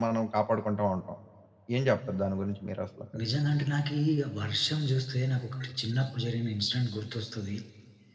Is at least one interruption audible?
No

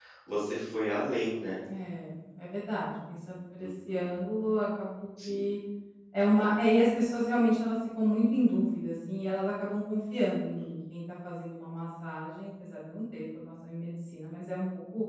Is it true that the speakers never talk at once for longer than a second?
Yes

